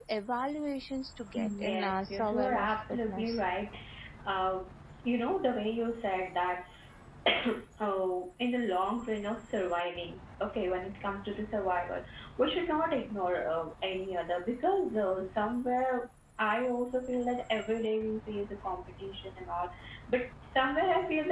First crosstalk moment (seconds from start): 1 s

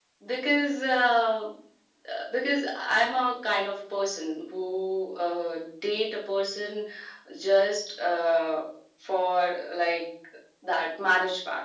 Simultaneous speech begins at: none

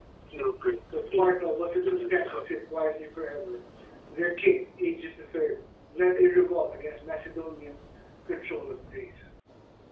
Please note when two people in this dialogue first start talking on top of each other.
1 s

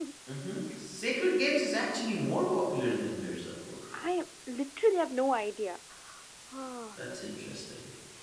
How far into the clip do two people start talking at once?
none

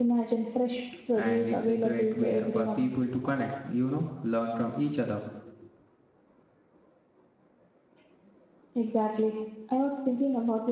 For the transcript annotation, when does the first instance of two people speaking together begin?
1 s

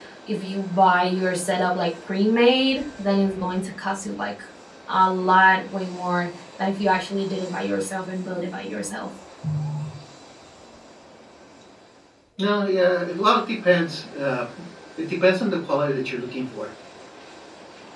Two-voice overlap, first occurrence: none

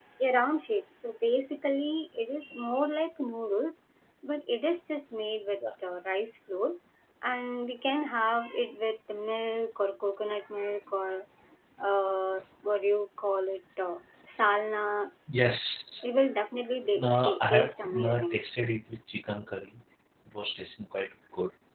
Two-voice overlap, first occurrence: 17 s

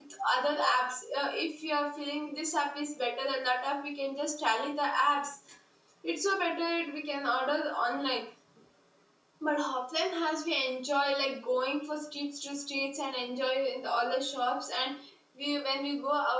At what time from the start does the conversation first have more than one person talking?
none

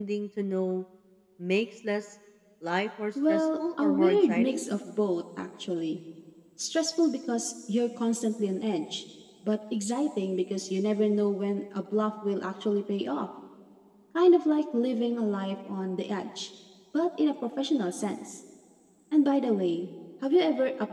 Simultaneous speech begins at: 3 s

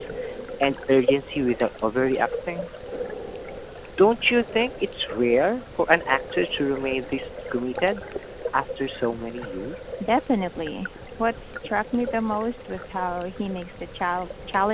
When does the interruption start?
none

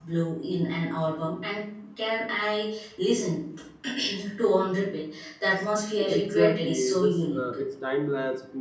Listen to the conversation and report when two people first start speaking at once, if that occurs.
6 s

